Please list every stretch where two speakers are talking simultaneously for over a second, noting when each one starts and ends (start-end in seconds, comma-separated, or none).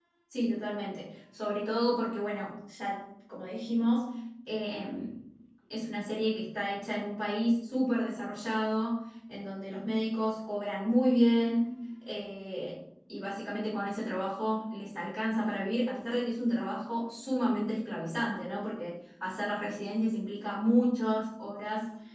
none